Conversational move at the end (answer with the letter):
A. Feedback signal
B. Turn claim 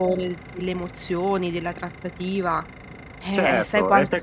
B